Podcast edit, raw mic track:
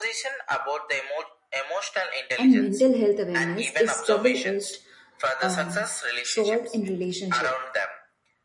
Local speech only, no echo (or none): and mental health awareness is double-edged um, sword in relationship